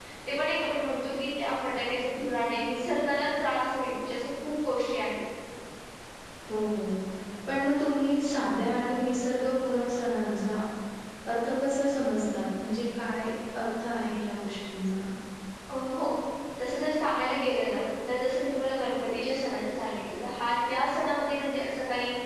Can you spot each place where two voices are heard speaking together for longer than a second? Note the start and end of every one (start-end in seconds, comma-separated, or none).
none